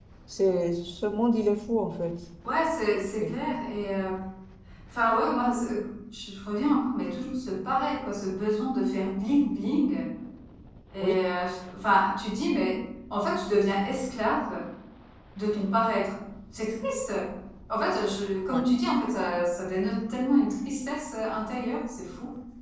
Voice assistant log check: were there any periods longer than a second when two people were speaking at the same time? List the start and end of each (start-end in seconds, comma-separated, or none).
none